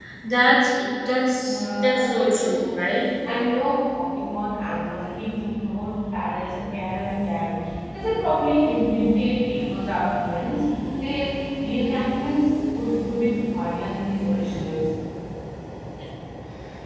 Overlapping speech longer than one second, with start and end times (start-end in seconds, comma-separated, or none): 1.4-3.0